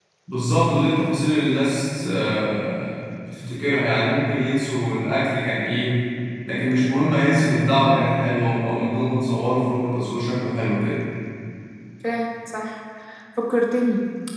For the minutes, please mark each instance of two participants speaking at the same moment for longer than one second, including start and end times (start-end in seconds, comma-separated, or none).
none